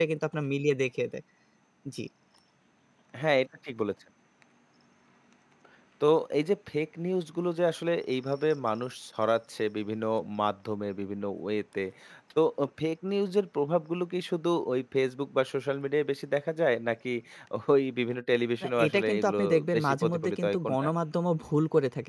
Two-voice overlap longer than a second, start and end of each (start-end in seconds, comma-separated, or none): 18.6-20.9